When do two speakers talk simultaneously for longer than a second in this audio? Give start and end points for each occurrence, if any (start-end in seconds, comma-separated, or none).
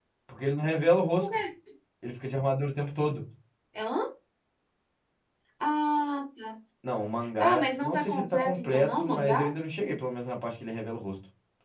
7.4-9.5